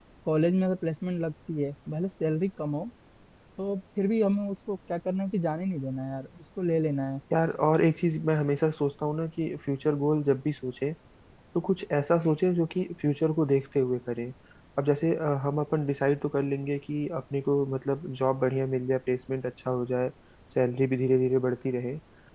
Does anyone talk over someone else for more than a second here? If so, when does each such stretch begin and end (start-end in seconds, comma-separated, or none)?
none